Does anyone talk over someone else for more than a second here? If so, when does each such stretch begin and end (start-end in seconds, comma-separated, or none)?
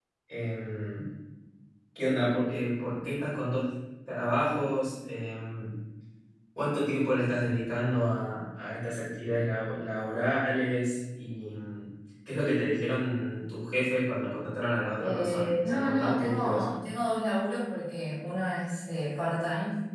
15.0-16.7